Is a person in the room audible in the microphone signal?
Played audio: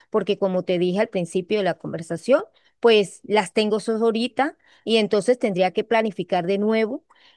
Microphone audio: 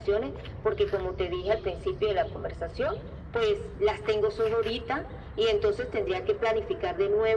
No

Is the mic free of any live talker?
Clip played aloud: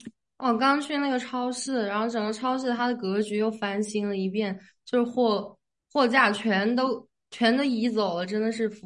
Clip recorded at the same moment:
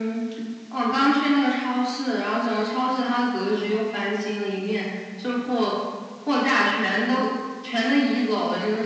Yes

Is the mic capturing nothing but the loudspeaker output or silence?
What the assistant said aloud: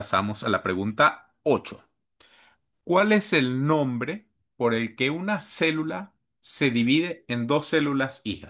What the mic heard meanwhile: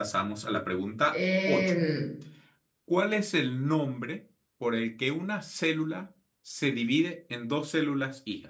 No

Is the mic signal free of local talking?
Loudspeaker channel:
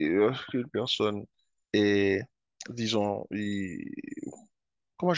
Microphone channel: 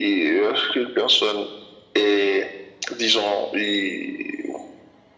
Yes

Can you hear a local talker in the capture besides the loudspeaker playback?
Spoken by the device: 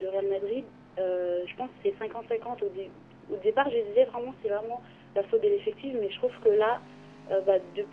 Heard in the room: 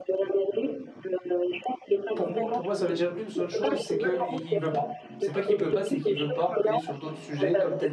Yes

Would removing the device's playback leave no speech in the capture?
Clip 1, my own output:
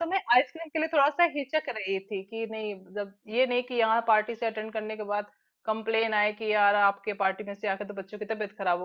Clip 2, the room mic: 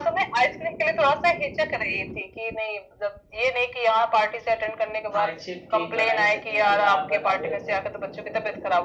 No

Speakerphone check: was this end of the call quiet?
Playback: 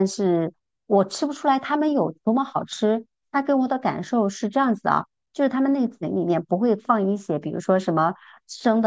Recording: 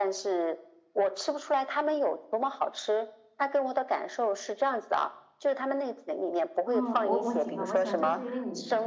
No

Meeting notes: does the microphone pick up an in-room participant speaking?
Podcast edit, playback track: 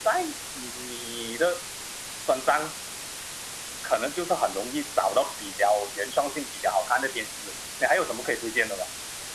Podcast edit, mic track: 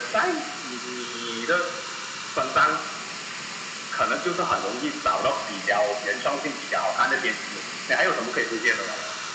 No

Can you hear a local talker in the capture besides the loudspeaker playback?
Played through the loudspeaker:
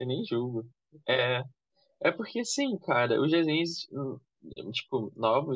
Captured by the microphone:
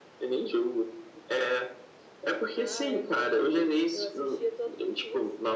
Yes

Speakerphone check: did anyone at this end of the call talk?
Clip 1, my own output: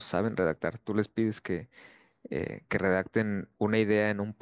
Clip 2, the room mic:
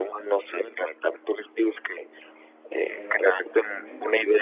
Yes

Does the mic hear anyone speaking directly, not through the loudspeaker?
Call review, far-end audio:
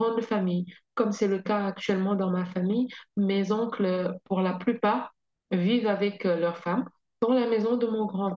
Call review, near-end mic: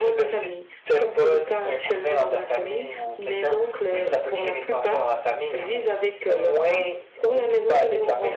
Yes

